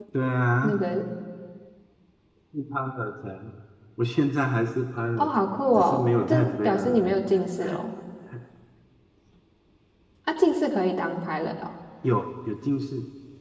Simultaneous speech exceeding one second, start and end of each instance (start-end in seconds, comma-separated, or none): 5.8-7.3